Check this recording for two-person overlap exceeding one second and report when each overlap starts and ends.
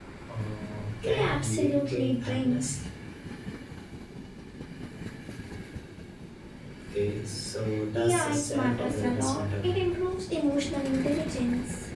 1.0-2.8, 7.9-9.8

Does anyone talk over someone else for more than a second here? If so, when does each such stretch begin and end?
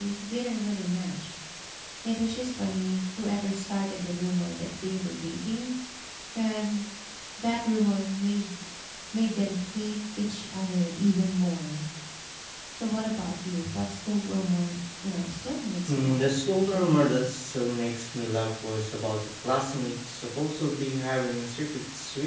15.9-17.1

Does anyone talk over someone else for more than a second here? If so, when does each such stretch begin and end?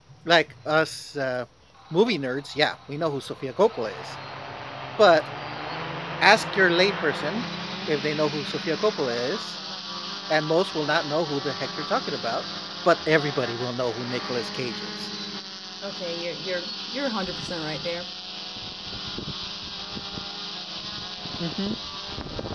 none

